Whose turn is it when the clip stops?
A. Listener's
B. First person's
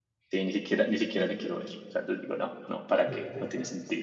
A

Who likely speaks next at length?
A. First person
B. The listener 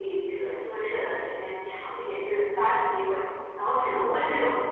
A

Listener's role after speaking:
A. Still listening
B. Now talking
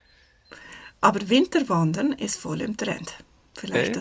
A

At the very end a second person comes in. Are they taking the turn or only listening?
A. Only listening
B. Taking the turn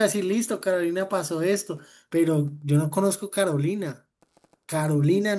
B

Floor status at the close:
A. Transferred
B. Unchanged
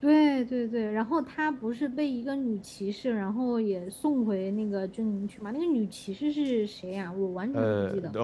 A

